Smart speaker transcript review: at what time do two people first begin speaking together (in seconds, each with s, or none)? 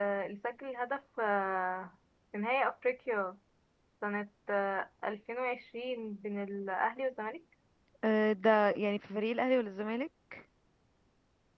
none